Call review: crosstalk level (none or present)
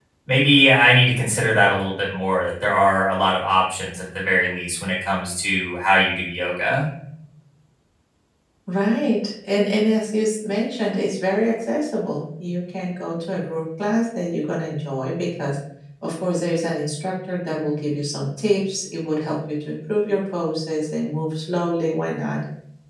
none